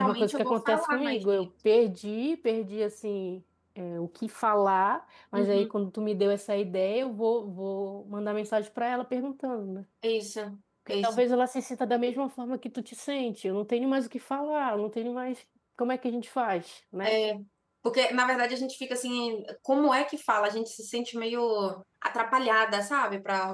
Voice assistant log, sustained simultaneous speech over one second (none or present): present